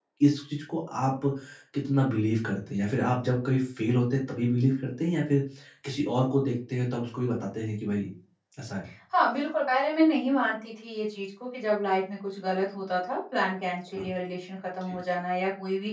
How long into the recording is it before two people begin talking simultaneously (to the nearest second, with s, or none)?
none